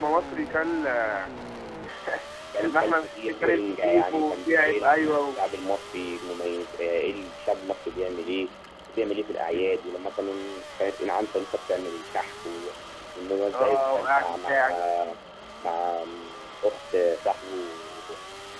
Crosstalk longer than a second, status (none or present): present